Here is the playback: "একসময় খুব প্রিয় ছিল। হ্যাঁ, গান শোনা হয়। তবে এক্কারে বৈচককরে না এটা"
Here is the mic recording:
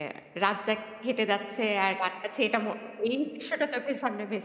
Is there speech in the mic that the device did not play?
Yes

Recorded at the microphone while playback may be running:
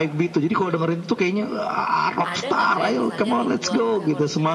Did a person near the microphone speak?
Yes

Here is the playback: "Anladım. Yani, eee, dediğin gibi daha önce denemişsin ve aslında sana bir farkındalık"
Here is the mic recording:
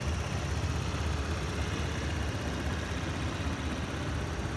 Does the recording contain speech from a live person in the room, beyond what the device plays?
No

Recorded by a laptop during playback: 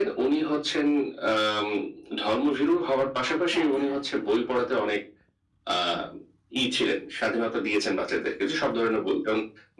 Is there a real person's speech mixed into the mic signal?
Yes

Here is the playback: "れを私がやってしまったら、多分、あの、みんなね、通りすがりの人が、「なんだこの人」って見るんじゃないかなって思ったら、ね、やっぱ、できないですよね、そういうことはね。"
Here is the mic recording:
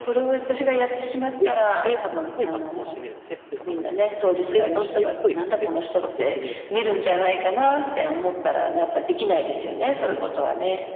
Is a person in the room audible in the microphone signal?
Yes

